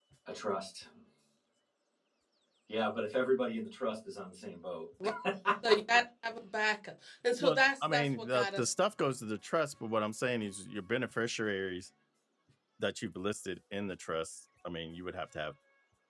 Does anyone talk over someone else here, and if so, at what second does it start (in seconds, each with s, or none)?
7.4 s